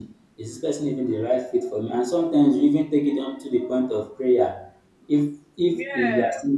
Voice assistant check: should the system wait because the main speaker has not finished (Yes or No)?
Yes